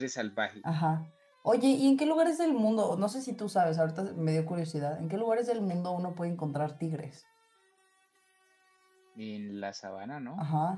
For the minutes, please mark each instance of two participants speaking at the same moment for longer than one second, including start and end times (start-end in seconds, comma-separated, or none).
none